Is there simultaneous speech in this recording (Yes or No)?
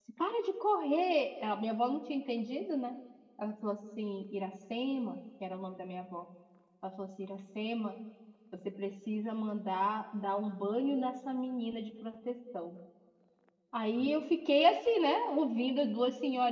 No